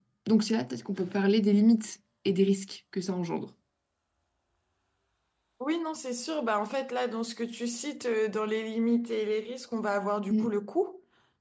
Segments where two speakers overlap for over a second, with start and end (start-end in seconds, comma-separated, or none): none